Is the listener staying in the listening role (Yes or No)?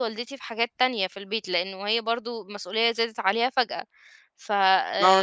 No